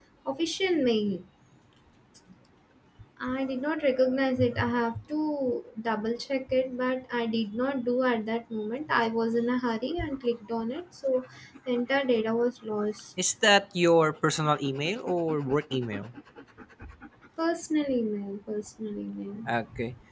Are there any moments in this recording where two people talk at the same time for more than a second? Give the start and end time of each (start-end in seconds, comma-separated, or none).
none